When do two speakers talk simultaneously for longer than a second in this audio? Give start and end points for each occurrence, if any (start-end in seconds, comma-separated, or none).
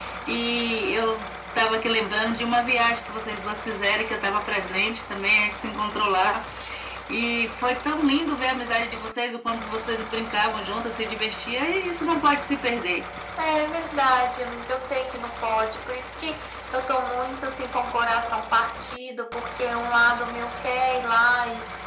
none